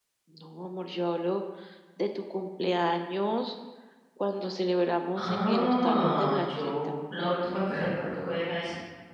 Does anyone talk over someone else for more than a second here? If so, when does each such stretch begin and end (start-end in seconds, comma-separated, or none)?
5.2-6.9